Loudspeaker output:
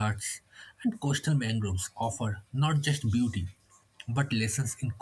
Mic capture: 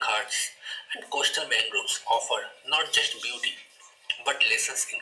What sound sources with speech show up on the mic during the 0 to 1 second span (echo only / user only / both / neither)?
echo only